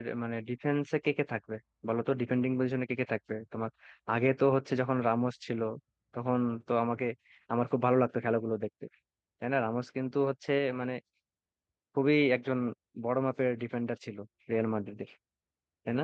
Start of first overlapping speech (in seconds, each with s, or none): none